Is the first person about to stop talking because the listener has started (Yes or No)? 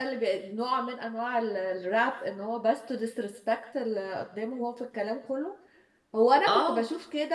No